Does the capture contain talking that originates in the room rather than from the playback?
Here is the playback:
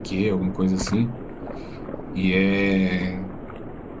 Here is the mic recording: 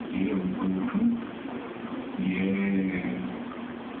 No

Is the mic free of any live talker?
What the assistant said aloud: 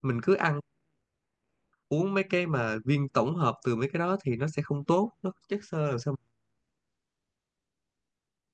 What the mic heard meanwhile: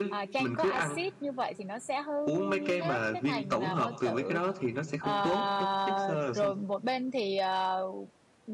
No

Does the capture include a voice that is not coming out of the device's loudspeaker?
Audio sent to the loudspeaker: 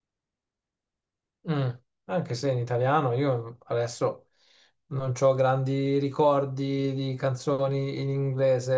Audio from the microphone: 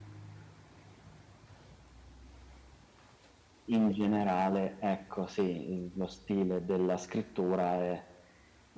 Yes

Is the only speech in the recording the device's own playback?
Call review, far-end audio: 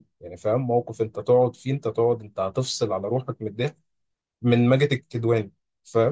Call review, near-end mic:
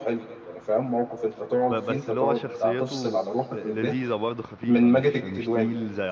No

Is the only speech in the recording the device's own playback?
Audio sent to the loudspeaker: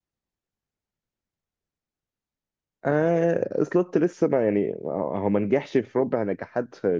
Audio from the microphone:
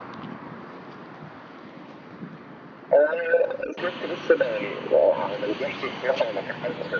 Yes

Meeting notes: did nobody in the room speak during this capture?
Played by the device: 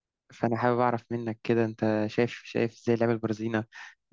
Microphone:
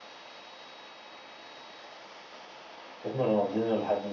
No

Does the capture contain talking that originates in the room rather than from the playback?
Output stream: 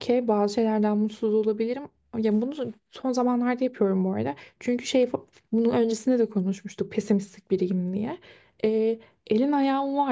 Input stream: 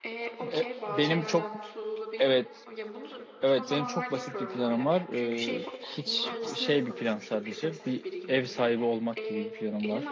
Yes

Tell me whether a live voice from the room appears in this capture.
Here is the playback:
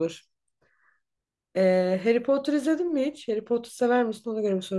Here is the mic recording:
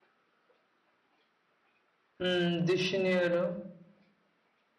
Yes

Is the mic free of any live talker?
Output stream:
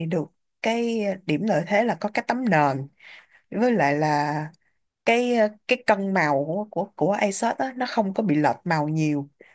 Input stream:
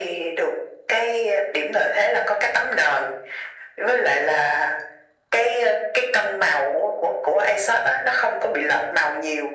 Yes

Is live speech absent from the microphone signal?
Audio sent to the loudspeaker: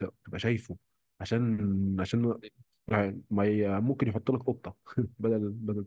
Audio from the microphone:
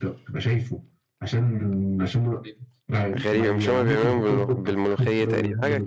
No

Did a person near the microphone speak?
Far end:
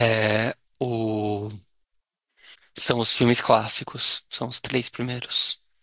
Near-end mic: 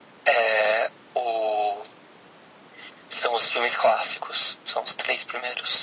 No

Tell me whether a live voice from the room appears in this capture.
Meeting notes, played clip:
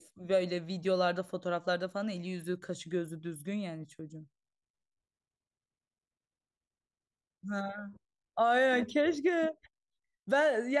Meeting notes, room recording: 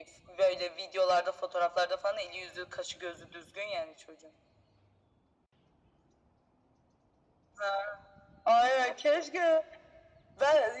No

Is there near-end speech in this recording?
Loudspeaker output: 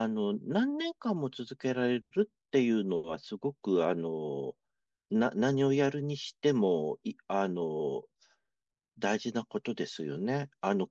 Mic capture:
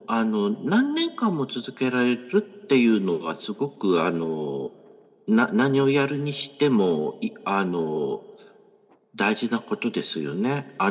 No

